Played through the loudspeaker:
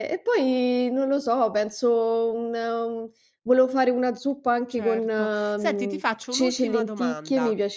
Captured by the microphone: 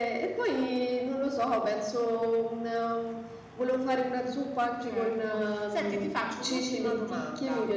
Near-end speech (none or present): none